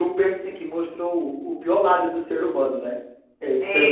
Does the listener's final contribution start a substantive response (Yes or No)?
Yes